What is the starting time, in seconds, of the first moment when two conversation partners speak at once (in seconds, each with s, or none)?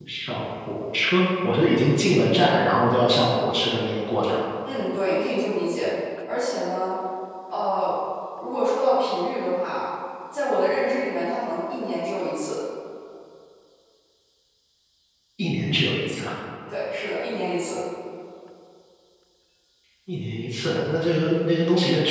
none